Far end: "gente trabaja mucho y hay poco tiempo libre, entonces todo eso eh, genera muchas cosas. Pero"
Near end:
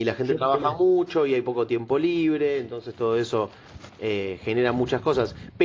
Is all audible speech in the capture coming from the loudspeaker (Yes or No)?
Yes